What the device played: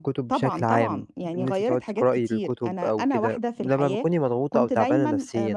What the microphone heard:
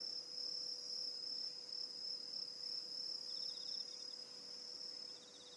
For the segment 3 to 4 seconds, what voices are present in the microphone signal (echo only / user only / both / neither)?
neither